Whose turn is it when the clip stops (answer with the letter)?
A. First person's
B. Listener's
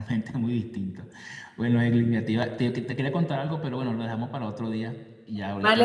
B